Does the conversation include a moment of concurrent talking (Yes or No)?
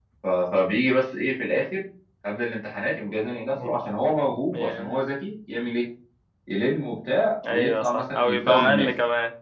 Yes